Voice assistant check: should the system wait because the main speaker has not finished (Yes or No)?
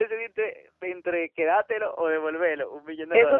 No